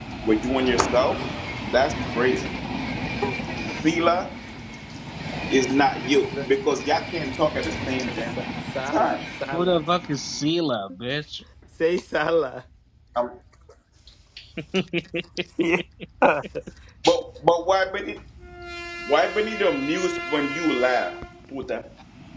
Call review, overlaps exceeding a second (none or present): none